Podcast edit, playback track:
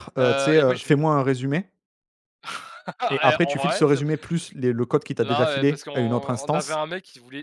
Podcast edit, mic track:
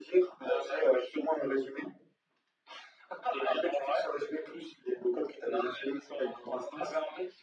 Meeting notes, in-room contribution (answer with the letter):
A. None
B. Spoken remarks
A